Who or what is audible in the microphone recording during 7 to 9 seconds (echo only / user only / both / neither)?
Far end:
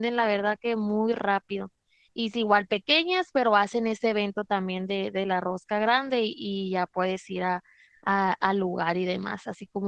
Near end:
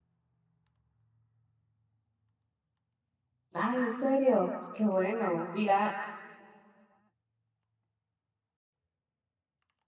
neither